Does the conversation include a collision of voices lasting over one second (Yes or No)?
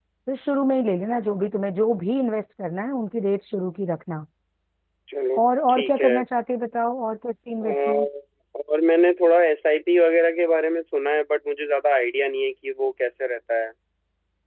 No